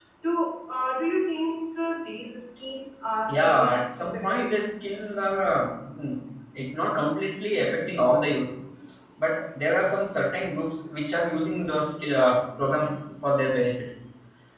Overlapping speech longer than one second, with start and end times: 3.3-4.5

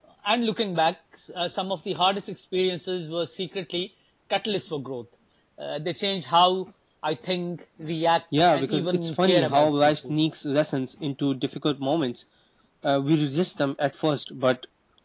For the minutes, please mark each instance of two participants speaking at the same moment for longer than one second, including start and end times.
8.5-10.2

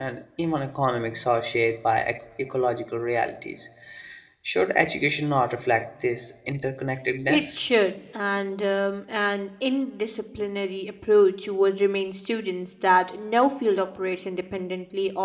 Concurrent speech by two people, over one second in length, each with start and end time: none

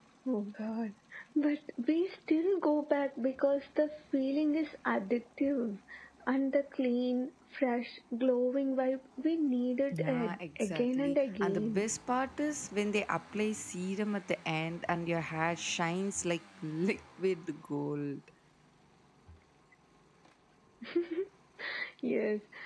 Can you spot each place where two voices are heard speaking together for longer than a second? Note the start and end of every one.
9.9-11.9

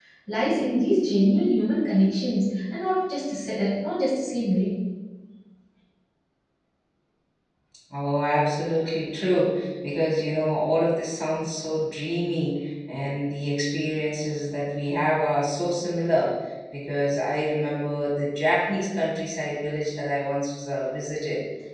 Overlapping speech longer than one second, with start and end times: none

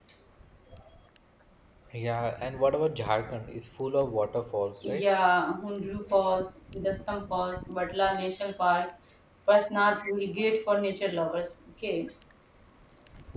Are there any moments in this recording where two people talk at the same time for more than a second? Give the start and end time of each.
none

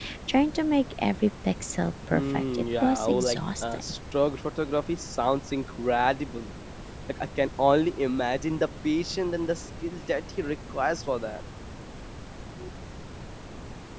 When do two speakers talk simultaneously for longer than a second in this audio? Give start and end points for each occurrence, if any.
2.1-3.8

